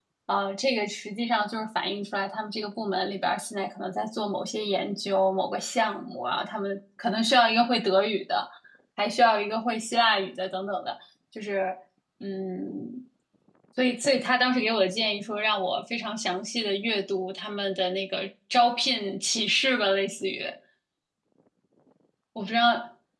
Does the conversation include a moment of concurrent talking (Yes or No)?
No